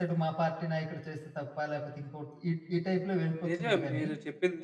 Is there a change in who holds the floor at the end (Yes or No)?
Yes